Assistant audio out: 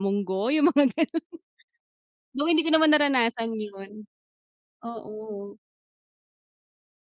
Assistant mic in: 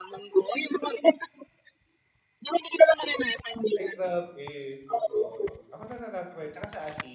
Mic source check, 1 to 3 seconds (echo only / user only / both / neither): echo only